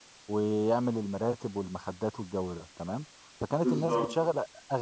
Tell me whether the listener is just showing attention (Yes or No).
Yes